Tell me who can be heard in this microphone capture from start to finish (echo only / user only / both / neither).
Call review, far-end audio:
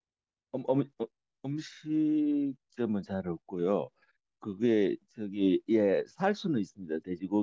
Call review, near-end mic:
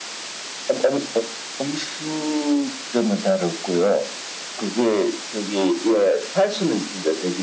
echo only